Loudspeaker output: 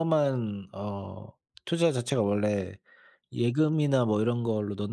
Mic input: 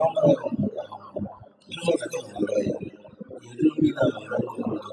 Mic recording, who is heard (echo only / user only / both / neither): echo only